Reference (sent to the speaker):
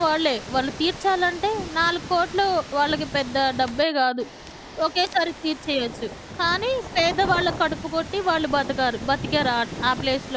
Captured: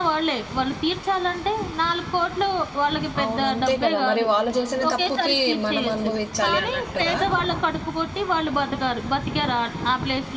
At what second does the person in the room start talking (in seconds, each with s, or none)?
3.2 s